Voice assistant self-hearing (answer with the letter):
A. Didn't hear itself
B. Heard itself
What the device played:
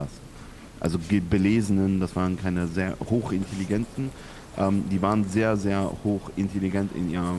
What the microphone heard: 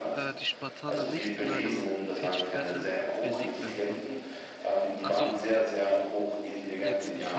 B